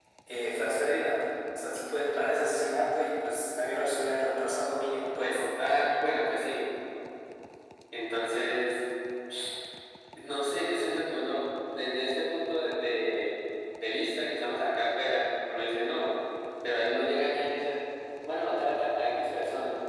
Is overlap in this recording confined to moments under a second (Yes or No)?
Yes